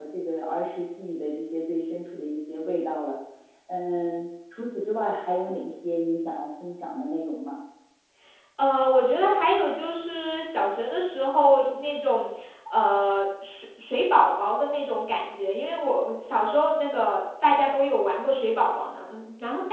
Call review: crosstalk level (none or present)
none